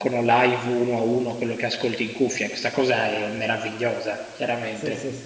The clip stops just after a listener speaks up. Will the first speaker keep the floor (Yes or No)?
No